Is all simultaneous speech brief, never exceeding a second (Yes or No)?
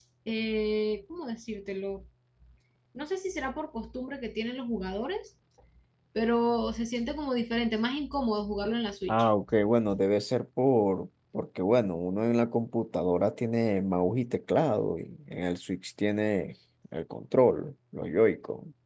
Yes